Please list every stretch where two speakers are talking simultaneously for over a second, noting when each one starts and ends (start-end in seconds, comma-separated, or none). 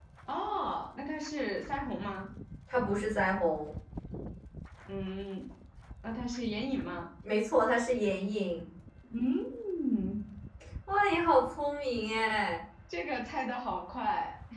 none